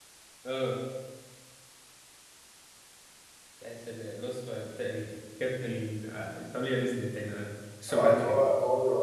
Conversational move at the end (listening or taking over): taking over